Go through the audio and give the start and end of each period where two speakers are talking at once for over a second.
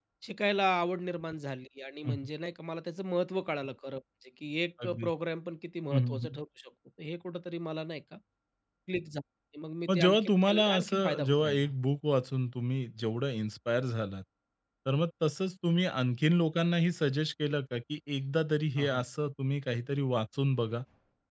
9.9-11.7

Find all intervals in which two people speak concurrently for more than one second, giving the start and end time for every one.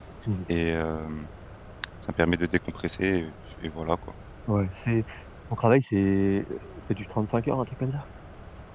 none

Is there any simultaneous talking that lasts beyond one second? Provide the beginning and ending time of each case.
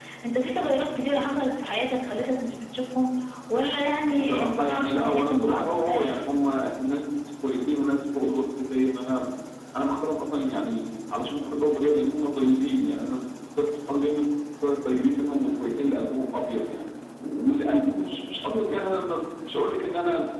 4.0-6.2

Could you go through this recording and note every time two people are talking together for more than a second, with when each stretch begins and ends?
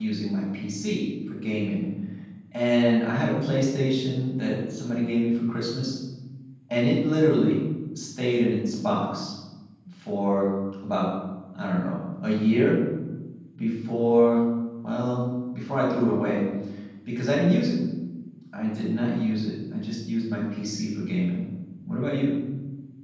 none

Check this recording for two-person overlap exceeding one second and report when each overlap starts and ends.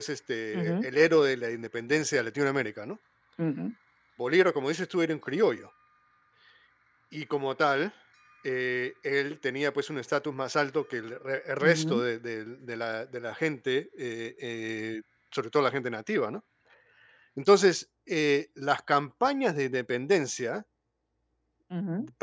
none

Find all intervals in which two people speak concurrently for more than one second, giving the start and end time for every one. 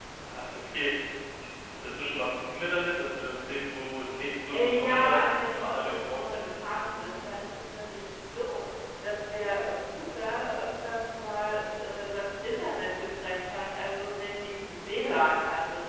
4.5-6.7

